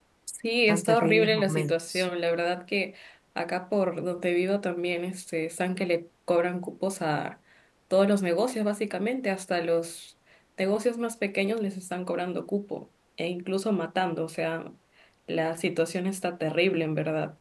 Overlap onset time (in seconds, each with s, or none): 0.7 s